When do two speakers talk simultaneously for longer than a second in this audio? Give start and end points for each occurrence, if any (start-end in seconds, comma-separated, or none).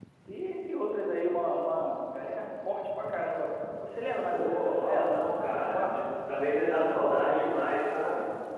4.3-6.0